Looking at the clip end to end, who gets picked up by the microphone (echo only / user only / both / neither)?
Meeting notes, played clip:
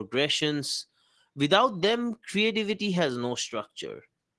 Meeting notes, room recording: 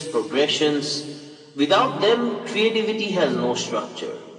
echo only